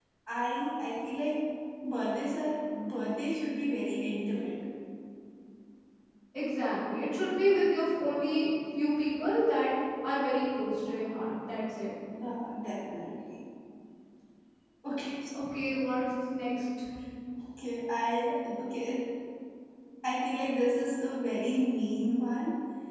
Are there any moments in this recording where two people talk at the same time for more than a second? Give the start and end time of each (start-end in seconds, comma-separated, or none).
none